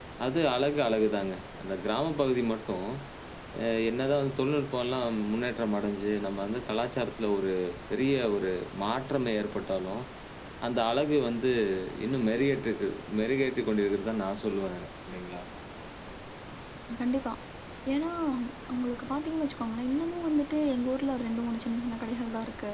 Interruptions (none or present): none